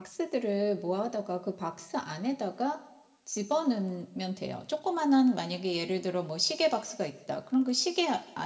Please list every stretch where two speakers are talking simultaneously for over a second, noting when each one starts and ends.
none

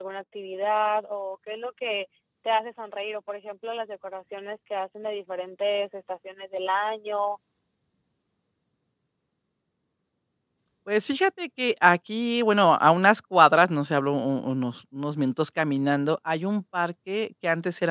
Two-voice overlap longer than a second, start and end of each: none

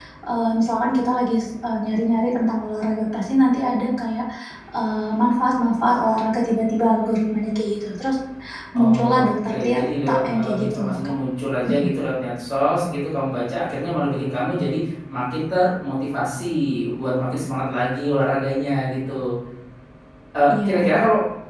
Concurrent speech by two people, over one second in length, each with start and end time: 8.8-11.1

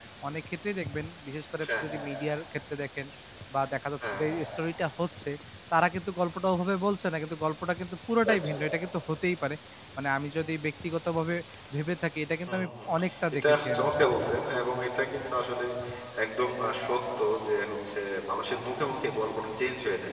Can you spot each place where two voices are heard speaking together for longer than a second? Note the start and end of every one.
none

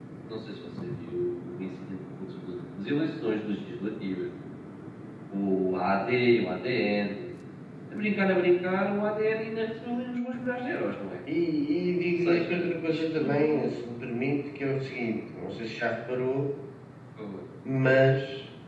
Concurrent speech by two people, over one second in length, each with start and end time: 12.1-13.7

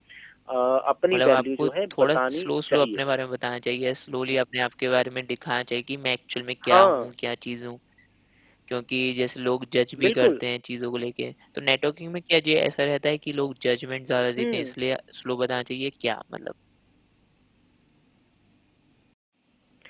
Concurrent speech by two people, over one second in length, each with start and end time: 1.1-3.0

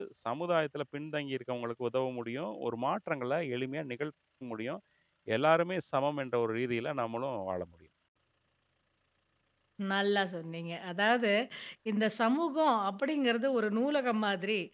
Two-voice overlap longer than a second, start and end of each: none

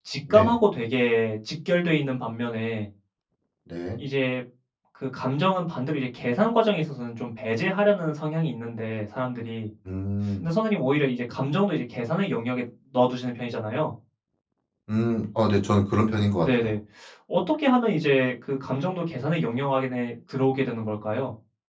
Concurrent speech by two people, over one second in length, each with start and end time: none

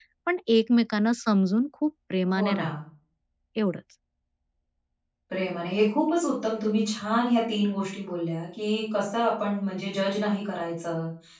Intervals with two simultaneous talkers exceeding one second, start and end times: none

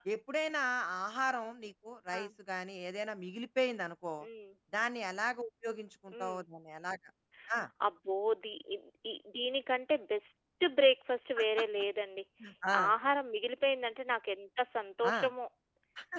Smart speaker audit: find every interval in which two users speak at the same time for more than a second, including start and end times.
none

